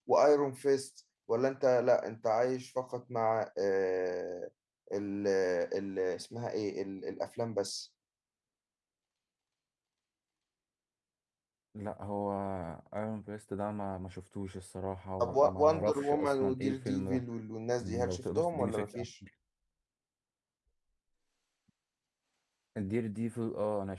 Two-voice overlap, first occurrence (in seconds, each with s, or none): 15.2 s